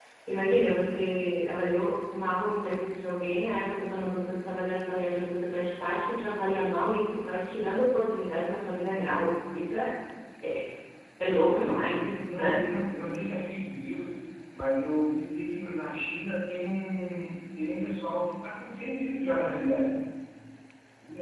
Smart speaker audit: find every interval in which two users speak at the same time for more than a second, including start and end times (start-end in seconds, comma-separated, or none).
11.4-12.7